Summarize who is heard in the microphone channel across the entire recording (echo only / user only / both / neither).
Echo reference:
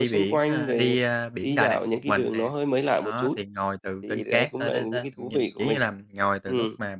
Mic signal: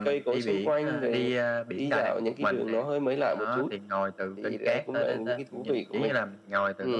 echo only